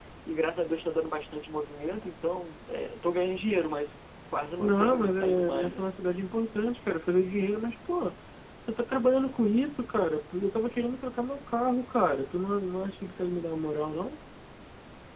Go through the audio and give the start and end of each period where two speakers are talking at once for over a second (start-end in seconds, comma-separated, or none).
4.6-5.8